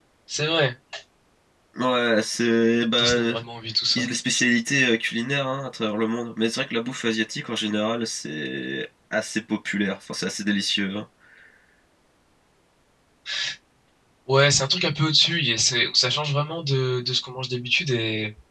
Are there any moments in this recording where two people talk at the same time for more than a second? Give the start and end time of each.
none

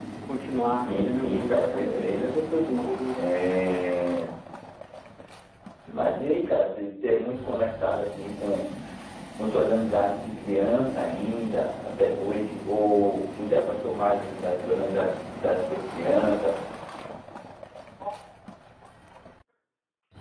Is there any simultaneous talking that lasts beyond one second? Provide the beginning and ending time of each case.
0.9-2.3

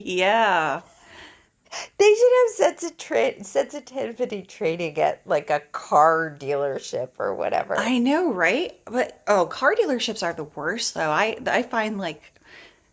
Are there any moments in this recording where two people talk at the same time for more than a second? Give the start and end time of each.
none

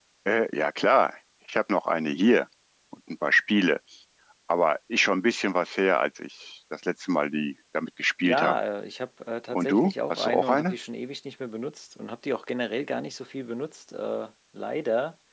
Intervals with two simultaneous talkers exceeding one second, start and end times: 9.5-10.8

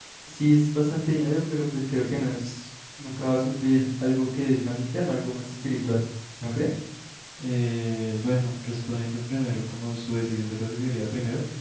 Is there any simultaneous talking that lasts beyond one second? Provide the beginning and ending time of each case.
none

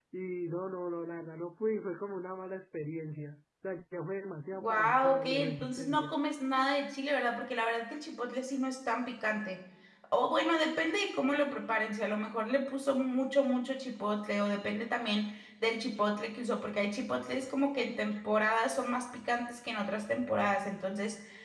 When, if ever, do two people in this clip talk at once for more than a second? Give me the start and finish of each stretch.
4.5-6.1

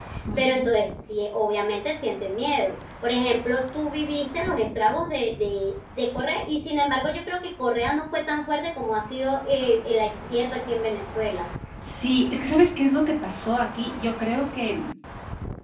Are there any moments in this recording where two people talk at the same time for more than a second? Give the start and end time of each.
none

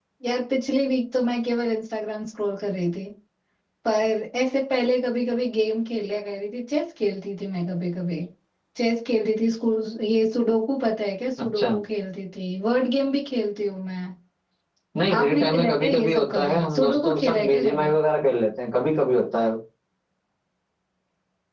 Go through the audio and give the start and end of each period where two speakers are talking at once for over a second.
15.1-17.9

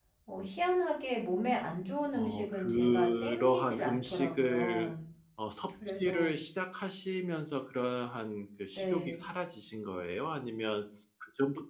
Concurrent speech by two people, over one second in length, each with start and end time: 2.1-4.9

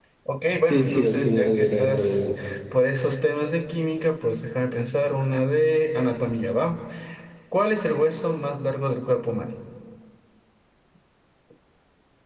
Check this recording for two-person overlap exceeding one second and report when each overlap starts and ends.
0.7-2.3

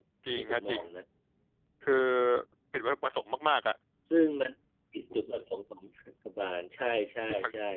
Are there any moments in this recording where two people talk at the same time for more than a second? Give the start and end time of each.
none

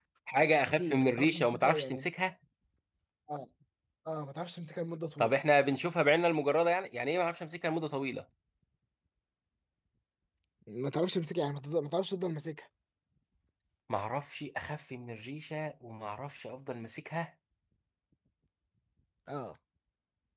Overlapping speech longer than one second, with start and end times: 0.6-2.1

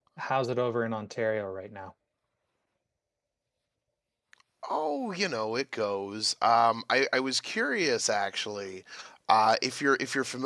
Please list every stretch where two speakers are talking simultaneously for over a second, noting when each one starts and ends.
none

